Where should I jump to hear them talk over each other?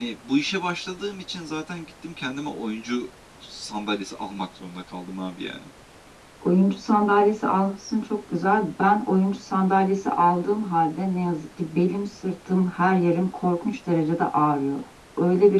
none

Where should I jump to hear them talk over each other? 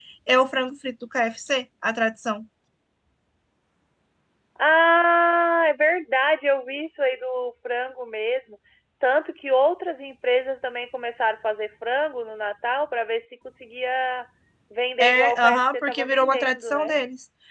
15.0 s

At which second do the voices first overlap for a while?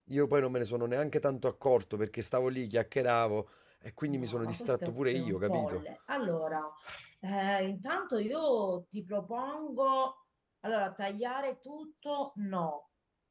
4.1 s

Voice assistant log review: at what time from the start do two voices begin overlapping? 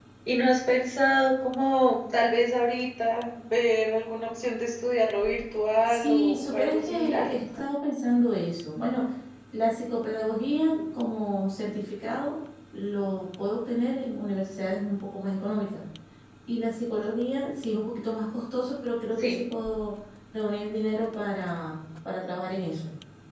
5.9 s

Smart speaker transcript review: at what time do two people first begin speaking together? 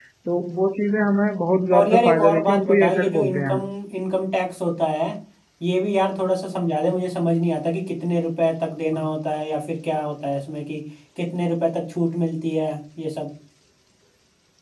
1.7 s

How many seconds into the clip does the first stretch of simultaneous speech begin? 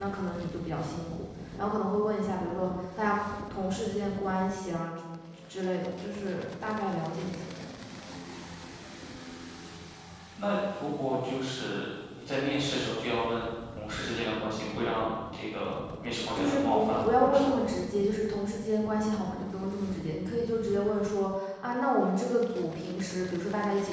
16.3 s

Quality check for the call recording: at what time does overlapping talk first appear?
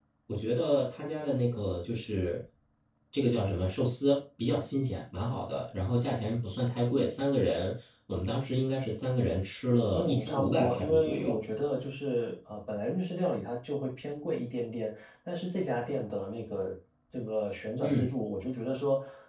9.9 s

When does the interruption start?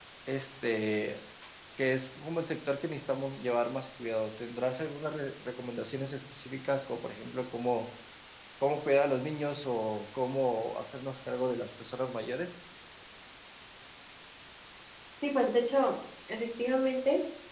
none

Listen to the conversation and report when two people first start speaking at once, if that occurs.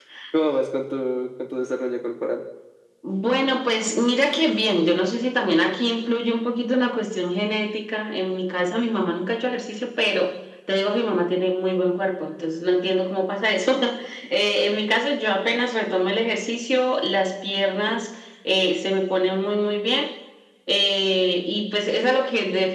none

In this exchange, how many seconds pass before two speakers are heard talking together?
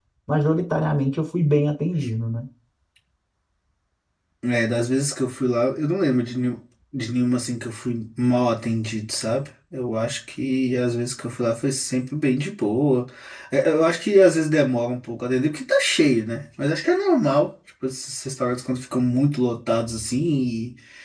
none

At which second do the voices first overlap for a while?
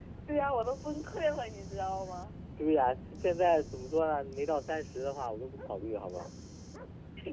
none

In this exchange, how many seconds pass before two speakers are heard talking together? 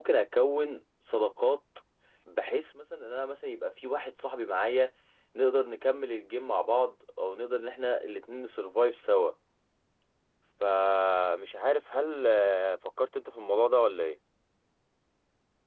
none

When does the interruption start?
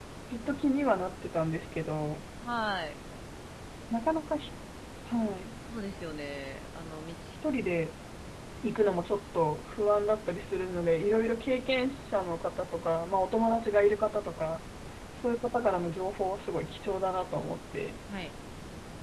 none

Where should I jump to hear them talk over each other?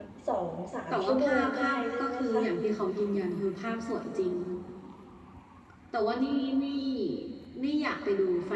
0.9 s

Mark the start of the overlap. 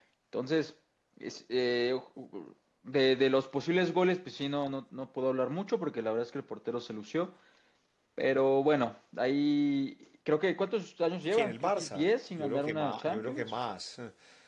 11.3 s

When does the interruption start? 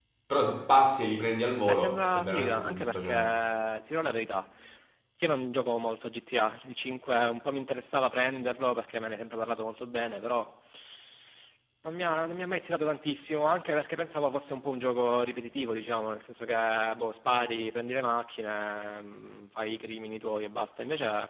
1.6 s

